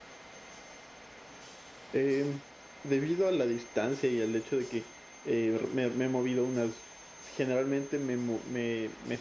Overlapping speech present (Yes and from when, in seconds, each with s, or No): No